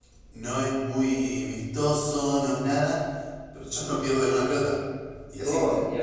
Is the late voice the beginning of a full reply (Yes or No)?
Yes